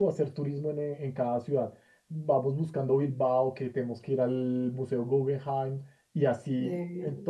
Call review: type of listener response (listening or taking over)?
listening